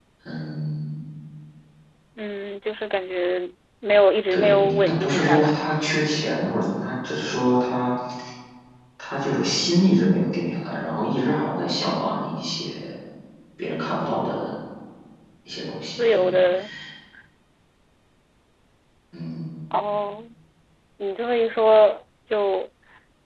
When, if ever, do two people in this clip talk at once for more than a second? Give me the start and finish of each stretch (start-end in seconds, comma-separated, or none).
4.3-5.7